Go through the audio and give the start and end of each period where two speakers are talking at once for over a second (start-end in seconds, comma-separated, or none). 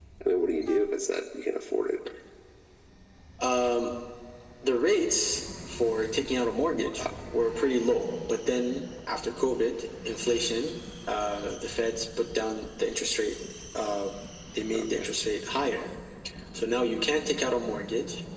none